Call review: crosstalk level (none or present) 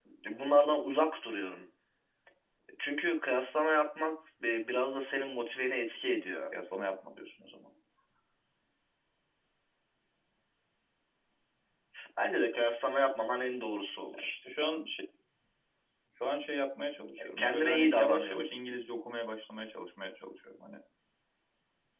present